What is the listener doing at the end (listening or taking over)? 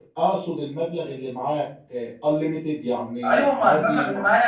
taking over